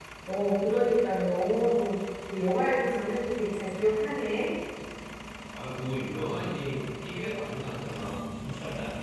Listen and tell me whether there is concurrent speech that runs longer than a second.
No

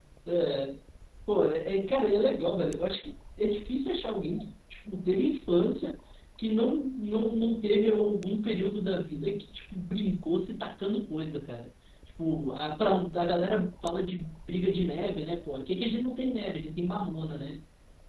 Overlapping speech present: No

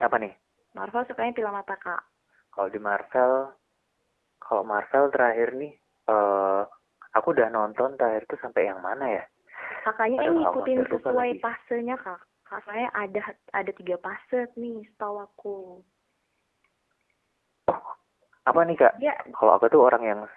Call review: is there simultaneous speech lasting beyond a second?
Yes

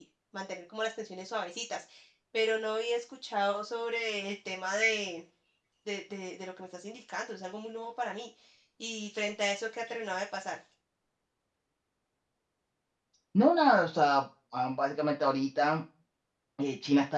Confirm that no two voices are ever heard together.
Yes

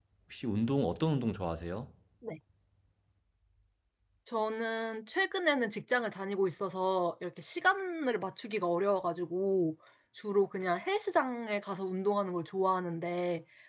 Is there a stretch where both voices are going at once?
No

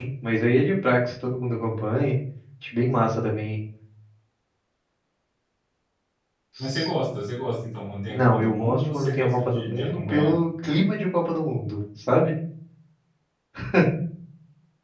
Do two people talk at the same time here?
Yes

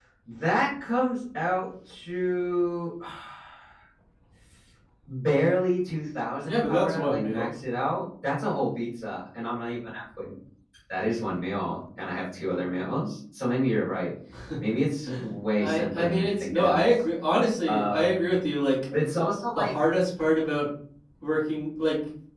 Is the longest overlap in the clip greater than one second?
Yes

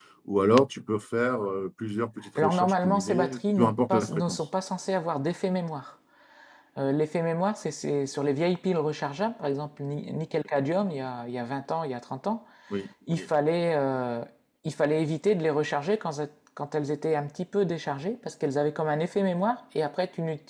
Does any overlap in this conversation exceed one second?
Yes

